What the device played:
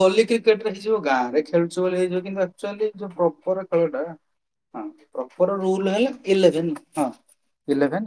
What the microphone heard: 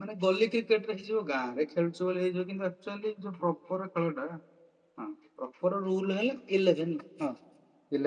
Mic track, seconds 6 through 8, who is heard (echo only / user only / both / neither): echo only